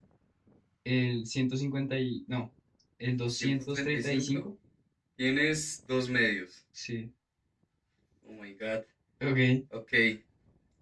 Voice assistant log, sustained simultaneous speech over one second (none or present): present